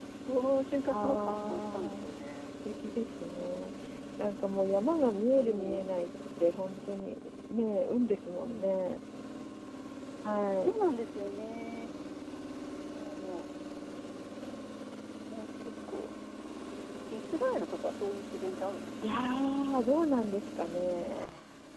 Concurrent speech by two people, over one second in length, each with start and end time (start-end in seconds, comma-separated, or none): 0.9-2.3